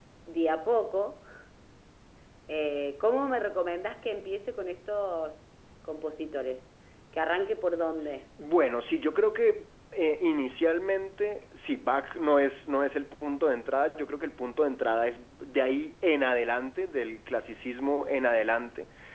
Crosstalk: none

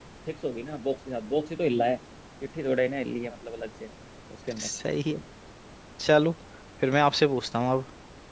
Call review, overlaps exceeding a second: none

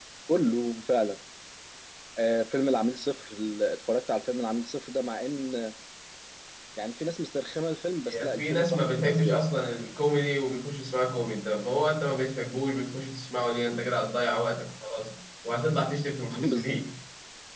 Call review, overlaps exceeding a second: present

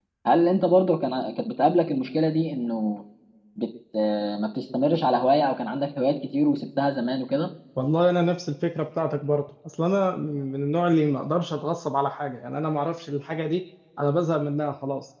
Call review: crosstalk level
none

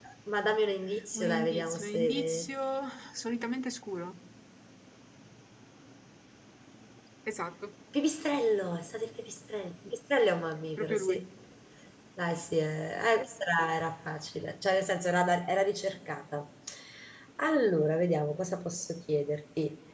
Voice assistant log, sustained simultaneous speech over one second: present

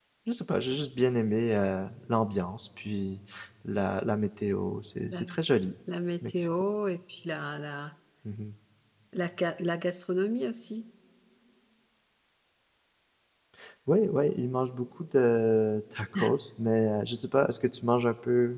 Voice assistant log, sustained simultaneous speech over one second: none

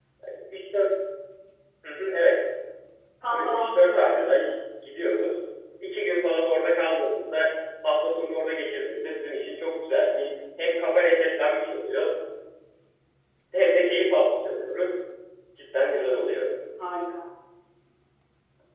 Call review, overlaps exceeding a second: present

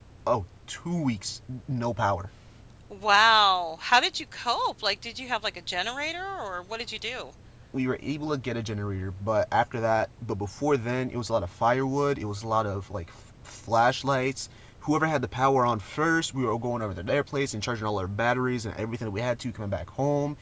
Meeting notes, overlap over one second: none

